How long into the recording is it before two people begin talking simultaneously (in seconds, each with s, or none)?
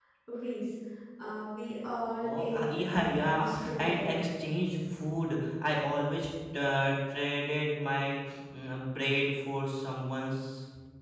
2.2 s